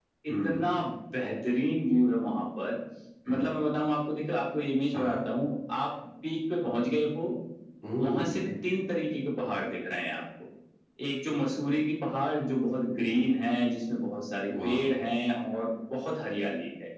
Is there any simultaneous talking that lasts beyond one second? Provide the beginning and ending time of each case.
none

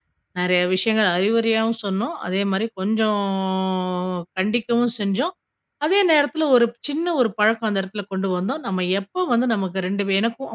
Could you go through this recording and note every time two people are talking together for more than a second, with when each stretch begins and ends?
none

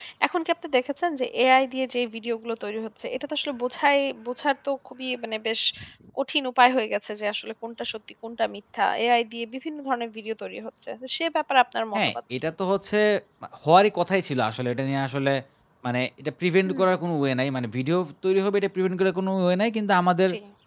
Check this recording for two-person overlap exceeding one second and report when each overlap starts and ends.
none

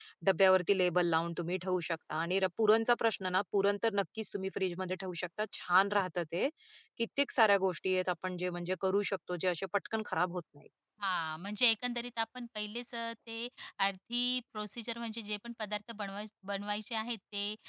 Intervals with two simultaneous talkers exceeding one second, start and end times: none

